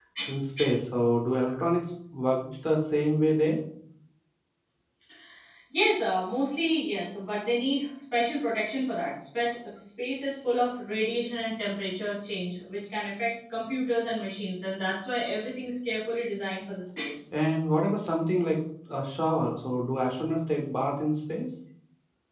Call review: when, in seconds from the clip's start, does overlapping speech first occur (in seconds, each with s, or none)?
none